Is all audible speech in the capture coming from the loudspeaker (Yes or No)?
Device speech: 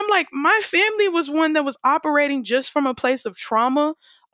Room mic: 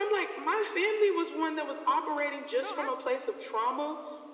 No